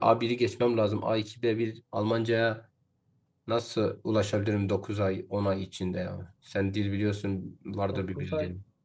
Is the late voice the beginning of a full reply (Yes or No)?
Yes